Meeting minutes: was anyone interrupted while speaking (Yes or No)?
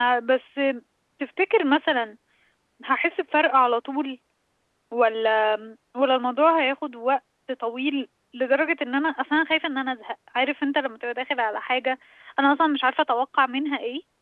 No